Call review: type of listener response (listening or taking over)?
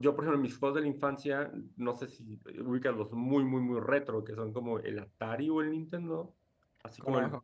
listening